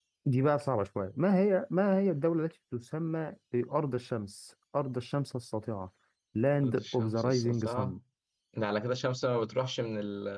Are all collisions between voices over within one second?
No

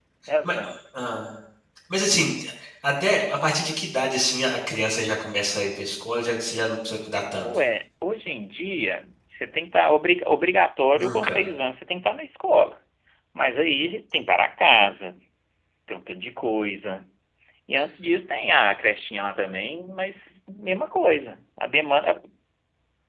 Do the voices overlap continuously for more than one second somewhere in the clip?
No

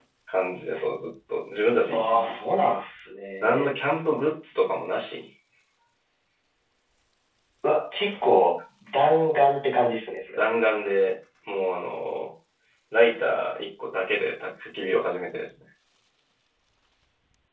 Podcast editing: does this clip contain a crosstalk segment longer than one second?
No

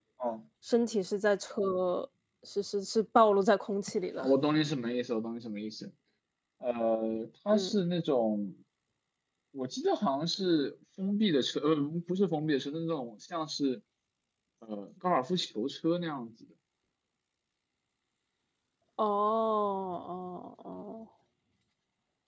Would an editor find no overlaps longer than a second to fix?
Yes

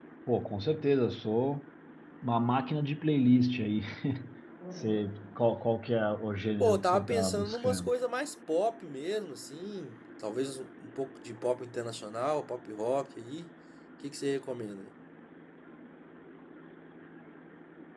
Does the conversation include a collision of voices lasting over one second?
Yes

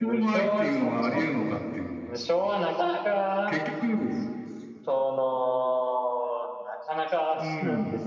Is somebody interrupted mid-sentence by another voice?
Yes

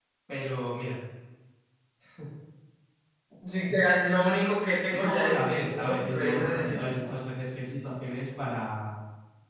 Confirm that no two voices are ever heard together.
No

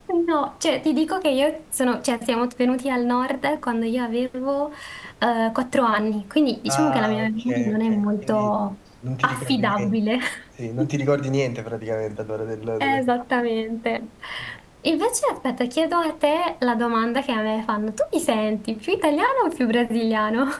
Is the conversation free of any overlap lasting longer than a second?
No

